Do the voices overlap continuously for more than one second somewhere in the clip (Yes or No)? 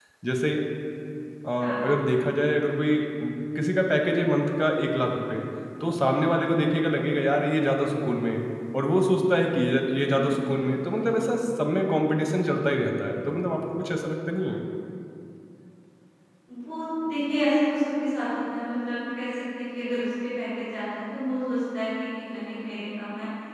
No